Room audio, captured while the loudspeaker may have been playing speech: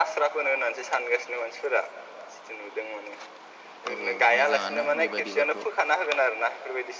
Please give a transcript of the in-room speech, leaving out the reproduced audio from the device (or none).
औ मोजाङानो बेबायदिबाथ'